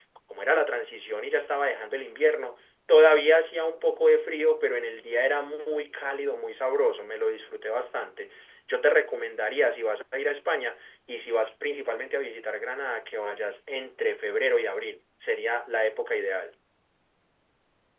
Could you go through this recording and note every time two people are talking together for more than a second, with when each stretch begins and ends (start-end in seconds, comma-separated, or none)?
none